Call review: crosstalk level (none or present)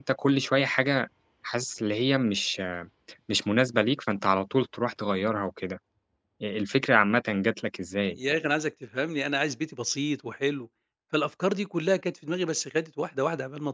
none